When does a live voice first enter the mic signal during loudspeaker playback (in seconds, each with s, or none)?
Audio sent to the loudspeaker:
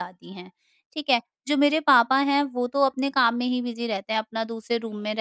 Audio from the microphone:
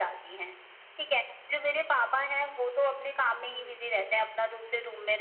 3.4 s